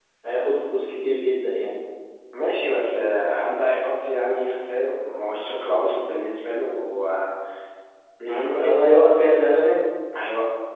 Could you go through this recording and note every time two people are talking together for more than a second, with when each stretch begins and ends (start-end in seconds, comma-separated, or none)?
none